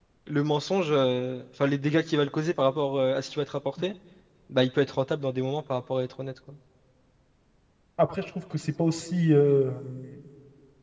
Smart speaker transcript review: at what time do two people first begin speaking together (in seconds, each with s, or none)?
none